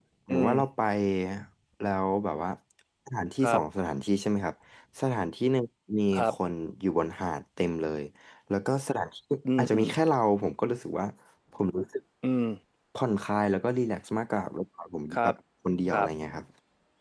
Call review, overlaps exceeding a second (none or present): none